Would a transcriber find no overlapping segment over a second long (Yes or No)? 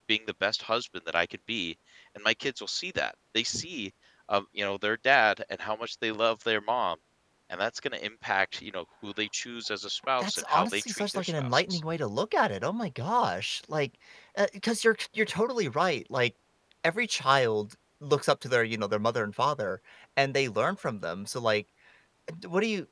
No